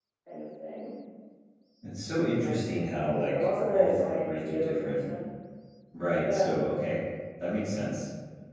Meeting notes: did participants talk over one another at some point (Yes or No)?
Yes